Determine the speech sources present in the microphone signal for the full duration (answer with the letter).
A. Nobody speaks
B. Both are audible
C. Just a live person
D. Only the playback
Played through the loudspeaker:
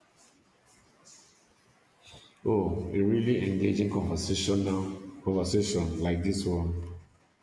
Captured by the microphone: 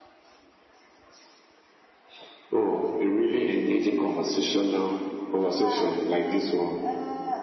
B